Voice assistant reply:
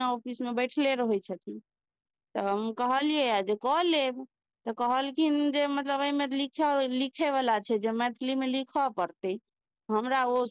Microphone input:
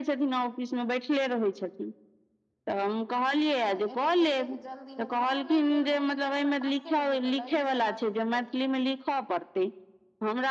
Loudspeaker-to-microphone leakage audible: Yes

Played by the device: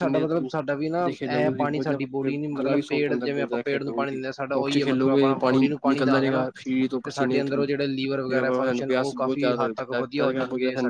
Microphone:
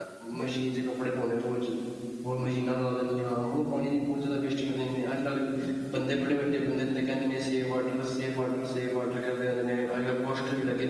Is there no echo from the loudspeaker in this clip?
Yes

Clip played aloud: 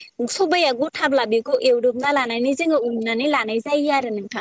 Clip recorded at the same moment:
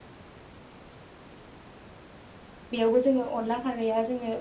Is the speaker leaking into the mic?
No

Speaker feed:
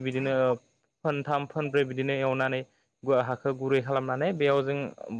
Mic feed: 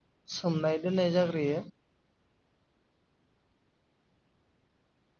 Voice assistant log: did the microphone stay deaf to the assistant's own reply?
Yes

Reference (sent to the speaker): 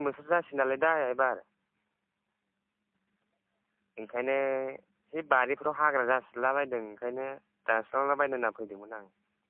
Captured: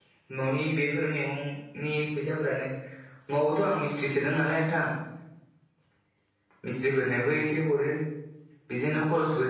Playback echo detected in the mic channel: No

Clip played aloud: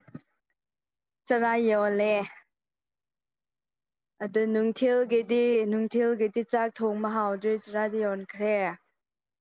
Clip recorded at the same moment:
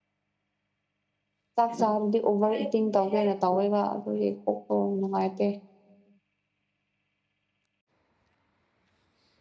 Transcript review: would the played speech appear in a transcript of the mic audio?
No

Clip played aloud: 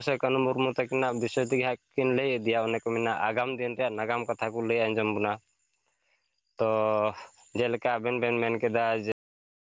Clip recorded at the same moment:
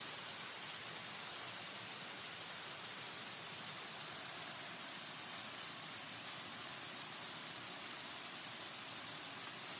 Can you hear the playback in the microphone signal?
No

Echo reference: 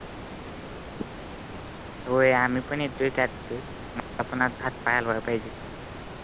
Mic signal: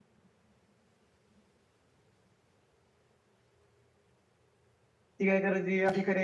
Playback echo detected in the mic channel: No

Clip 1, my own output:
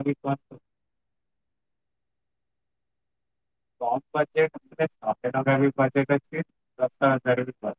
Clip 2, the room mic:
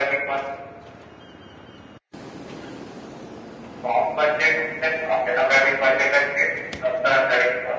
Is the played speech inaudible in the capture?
No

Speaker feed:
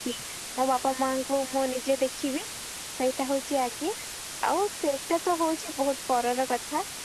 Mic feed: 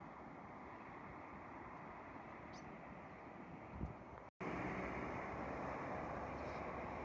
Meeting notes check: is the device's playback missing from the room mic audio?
Yes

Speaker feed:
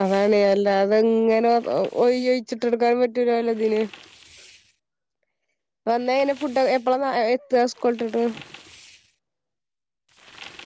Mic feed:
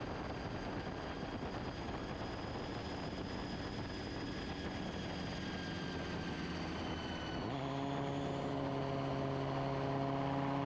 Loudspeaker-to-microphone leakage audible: No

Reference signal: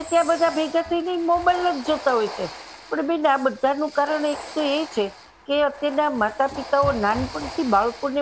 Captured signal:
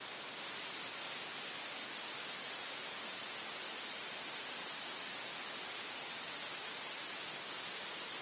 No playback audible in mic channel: Yes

